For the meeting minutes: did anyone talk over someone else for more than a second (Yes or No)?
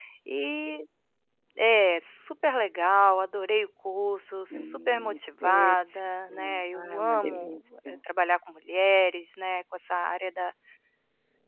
Yes